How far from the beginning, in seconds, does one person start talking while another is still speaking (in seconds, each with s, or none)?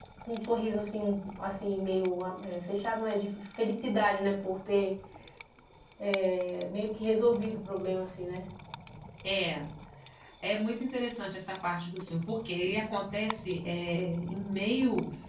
none